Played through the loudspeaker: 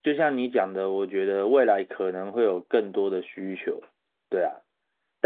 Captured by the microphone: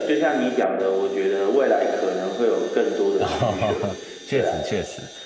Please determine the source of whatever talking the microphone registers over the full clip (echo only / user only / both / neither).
both